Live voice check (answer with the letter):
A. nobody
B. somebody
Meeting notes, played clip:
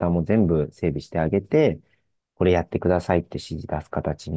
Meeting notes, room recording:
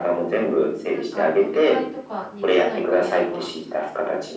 B